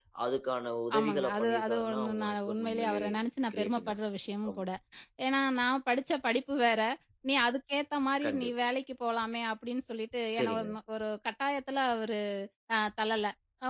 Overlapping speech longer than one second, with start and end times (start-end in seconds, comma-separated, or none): 1.0-3.1